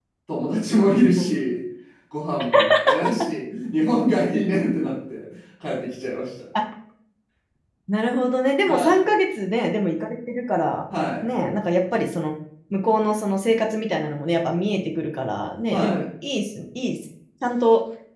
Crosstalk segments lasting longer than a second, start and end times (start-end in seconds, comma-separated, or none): none